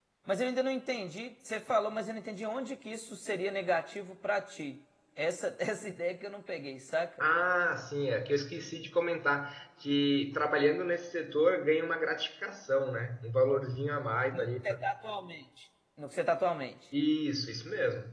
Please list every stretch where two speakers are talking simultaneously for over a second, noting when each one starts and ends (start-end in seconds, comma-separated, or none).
none